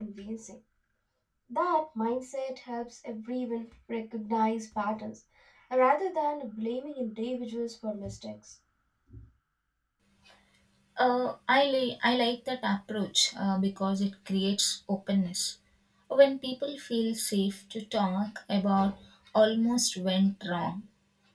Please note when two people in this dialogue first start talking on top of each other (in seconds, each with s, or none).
none